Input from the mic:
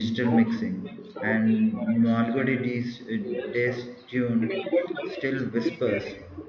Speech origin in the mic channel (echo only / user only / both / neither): both